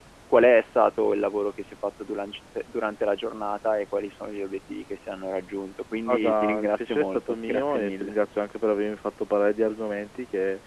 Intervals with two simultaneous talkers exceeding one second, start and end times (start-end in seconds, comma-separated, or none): 6.1-8.1